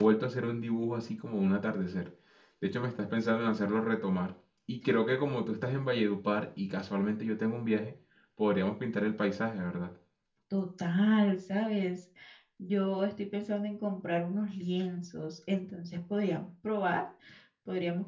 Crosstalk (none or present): none